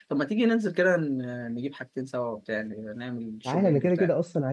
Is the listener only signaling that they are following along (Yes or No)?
No